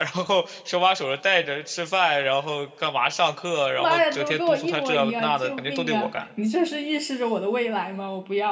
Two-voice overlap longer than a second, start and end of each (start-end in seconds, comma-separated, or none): 3.8-6.1